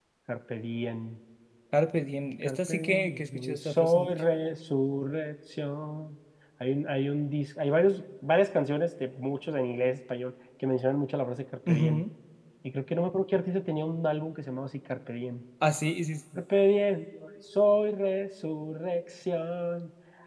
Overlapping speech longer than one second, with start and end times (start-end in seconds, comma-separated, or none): 2.4-4.1